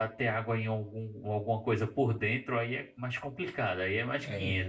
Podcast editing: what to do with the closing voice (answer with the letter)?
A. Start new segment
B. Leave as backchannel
A